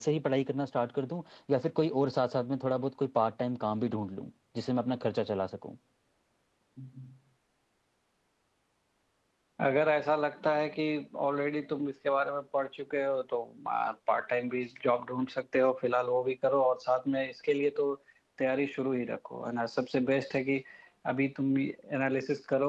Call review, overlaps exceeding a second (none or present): none